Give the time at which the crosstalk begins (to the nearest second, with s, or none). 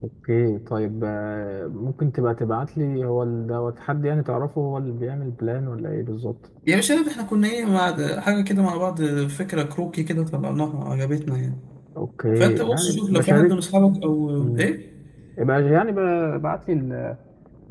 12 s